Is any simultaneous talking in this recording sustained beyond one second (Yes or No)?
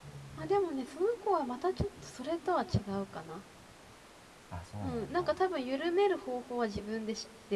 No